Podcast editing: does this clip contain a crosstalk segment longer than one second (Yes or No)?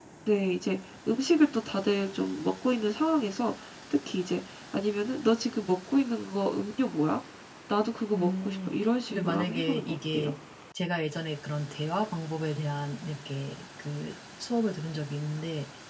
Yes